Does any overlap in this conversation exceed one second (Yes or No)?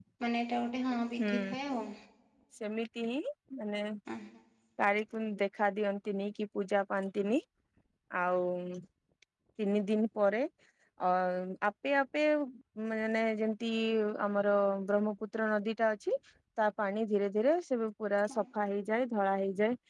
No